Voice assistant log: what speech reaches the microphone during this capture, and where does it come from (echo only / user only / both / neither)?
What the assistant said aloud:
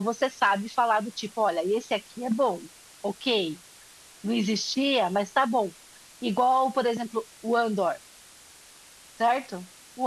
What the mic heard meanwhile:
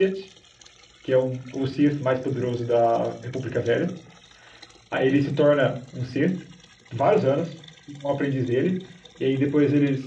user only